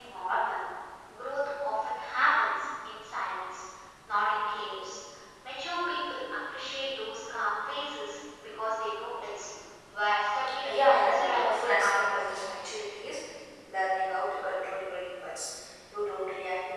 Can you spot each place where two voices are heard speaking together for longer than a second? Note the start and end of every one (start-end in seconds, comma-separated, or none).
10.7-12.4